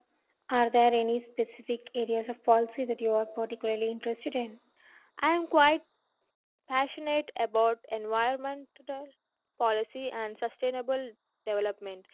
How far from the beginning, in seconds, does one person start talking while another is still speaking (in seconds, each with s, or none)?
none